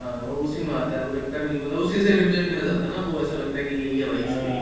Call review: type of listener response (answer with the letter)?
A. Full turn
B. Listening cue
A